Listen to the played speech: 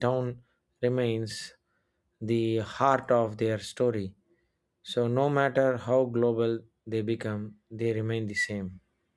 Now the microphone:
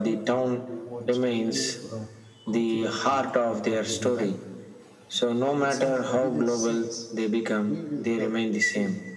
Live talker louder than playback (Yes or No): No